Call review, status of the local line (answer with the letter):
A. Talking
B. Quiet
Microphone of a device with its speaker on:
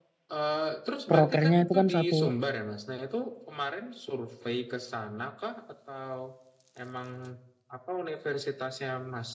A